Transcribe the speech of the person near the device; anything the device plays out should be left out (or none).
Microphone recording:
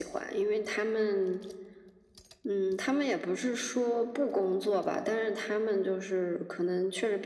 none